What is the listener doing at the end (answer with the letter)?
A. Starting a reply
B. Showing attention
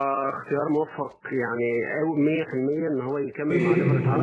A